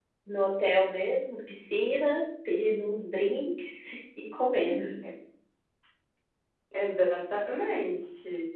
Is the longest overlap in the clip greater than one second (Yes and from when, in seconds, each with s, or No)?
No